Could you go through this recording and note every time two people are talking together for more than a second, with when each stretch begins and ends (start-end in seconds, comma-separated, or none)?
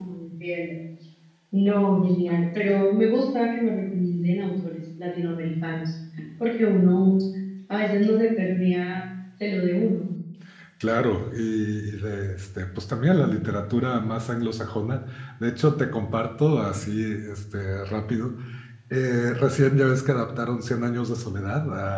none